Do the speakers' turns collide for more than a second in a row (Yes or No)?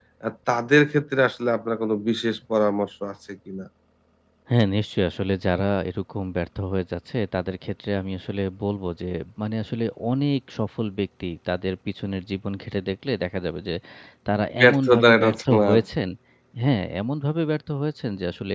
Yes